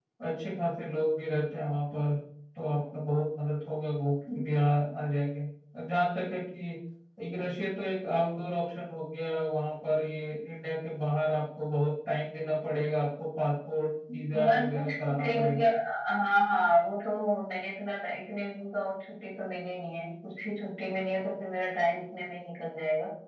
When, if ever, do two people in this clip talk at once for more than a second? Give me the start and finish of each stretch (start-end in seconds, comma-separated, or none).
14.3-15.7